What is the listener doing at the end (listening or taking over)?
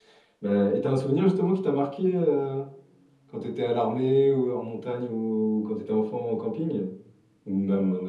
taking over